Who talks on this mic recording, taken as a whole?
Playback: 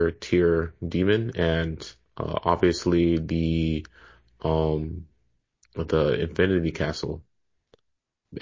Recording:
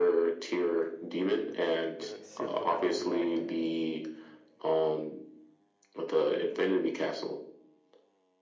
both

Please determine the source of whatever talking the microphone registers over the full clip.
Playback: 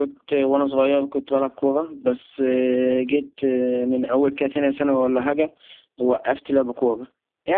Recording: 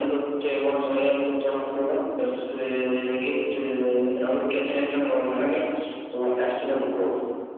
echo only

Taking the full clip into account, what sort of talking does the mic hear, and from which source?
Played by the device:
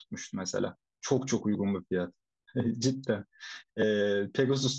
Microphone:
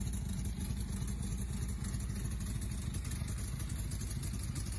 neither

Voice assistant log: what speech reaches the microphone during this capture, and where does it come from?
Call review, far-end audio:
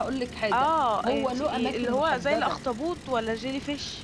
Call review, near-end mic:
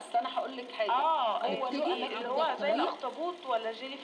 both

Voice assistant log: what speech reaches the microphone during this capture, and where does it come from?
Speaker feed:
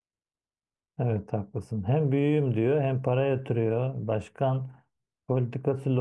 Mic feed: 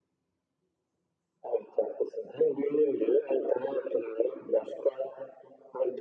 echo only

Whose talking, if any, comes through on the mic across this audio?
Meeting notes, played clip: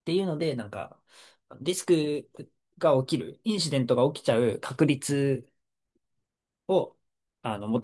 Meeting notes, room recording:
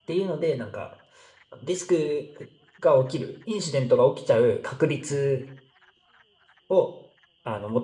echo only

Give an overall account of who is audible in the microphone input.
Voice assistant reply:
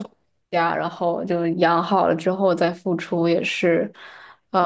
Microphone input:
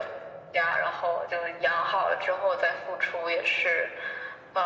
echo only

